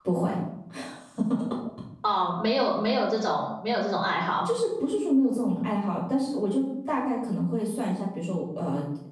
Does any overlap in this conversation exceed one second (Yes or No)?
No